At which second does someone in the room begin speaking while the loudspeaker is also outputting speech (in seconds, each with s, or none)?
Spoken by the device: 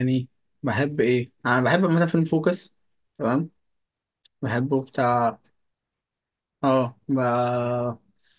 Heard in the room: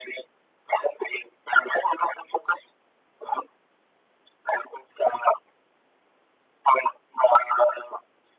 none